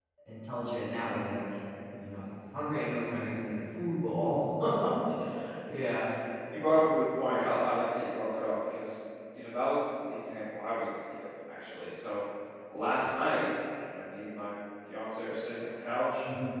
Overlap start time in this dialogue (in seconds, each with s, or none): none